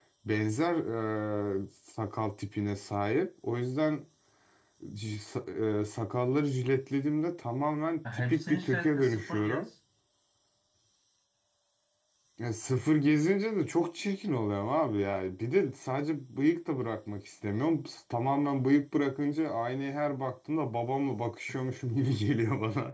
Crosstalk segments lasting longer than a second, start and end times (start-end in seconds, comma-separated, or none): 8.1-9.7